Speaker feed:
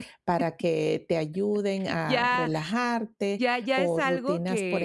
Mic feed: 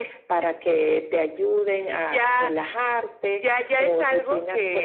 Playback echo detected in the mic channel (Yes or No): Yes